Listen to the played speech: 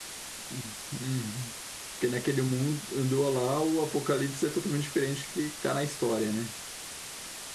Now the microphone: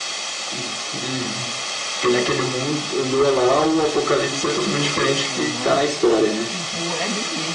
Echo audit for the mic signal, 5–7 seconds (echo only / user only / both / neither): both